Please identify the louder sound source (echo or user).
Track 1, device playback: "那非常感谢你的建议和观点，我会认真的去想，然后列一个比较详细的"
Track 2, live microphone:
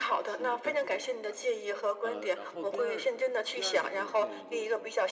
echo